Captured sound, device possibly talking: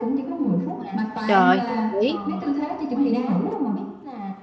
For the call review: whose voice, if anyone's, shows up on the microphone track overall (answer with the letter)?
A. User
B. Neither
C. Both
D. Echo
C